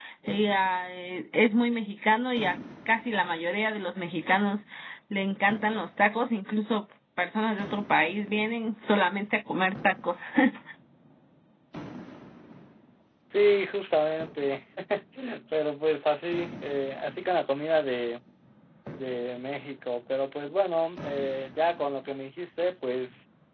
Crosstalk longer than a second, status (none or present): none